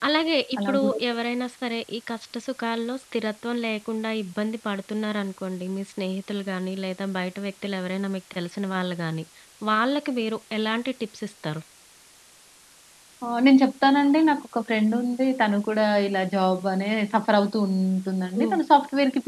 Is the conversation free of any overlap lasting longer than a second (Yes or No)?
Yes